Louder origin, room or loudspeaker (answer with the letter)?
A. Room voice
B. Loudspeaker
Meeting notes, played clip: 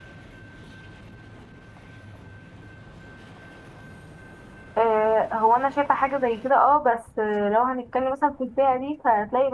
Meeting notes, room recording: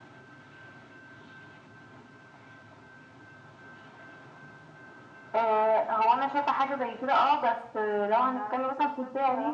B